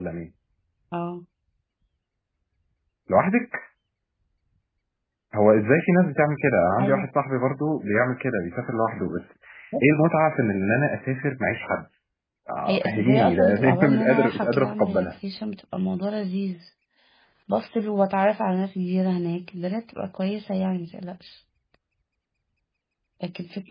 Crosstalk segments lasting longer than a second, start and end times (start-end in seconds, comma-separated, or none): 12.7-15.1